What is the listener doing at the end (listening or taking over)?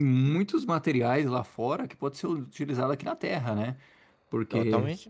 listening